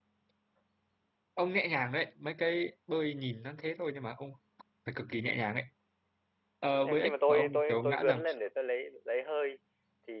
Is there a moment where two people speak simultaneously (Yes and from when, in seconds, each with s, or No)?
Yes, from 6.8 s